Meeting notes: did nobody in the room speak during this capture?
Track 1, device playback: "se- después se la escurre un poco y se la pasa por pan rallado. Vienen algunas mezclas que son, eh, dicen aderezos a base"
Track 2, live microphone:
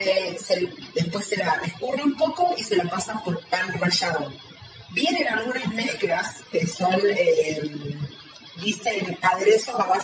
Yes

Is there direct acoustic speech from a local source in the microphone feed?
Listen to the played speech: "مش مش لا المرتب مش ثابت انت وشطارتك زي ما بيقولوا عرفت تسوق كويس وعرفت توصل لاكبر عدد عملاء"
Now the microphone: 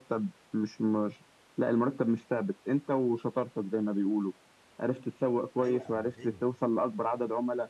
Yes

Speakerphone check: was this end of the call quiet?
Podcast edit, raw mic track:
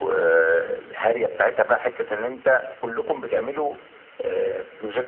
Yes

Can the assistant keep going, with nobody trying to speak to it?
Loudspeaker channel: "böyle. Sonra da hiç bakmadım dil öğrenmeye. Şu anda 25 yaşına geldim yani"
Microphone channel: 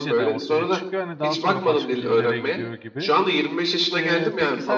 No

